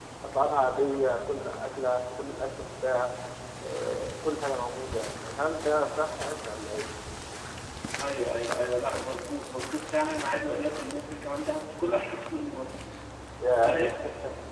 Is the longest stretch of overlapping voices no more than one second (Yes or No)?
Yes